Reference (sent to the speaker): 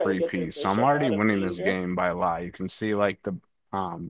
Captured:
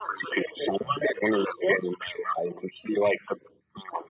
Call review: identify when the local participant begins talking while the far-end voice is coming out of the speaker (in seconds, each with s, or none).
none